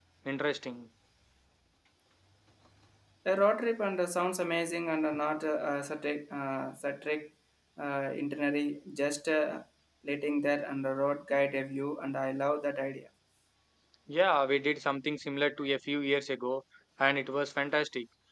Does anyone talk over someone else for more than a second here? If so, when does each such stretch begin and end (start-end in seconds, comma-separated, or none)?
none